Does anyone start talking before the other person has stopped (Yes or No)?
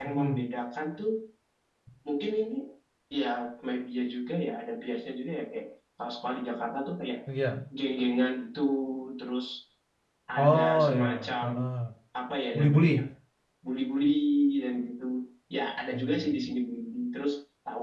Yes